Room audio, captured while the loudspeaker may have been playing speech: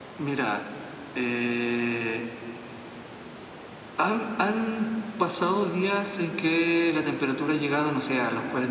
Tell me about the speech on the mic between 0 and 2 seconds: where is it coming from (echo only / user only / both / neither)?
echo only